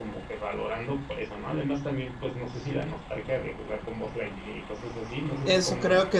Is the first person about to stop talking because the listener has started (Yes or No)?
Yes